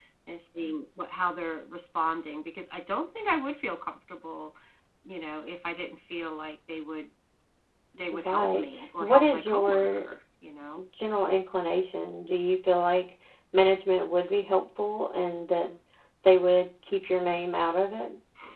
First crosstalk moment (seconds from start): 8.2 s

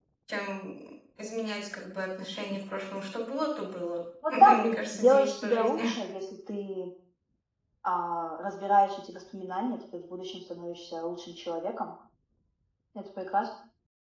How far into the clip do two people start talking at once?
4.2 s

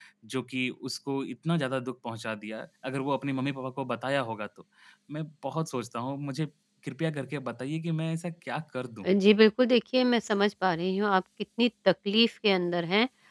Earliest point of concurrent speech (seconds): none

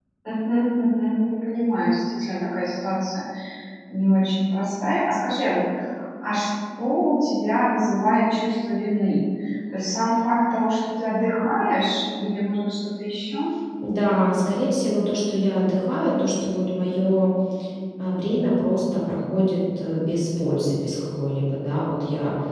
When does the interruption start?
none

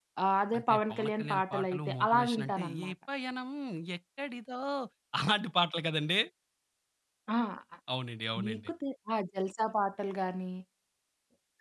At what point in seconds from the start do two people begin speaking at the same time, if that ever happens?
0.6 s

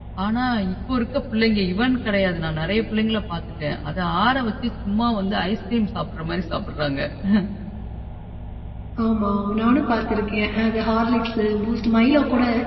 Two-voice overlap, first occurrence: none

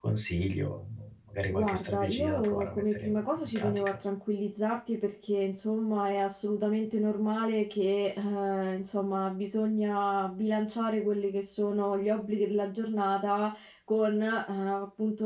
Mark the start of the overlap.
1.5 s

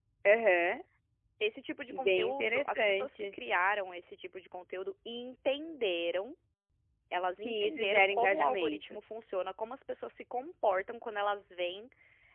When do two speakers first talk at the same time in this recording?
2.0 s

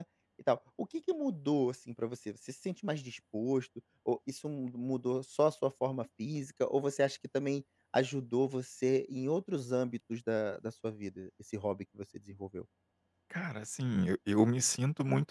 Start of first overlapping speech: none

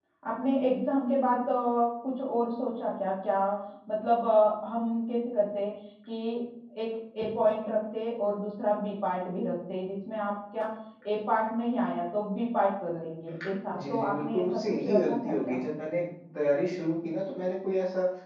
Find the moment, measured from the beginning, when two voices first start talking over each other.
13.7 s

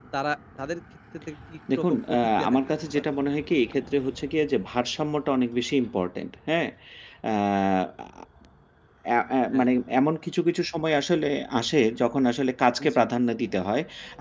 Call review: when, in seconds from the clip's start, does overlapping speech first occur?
1.8 s

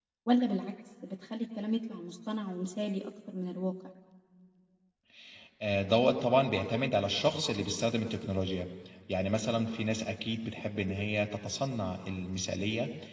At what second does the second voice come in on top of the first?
none

